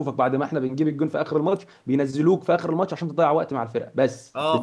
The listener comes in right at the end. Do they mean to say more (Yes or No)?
Yes